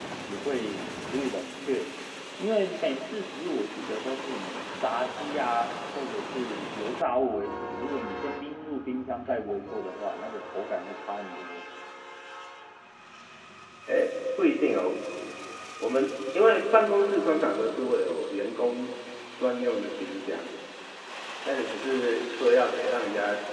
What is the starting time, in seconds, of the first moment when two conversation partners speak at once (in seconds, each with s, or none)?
none